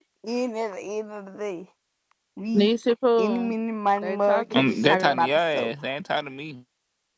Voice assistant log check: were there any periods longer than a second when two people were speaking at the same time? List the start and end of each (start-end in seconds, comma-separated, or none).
4.0-5.7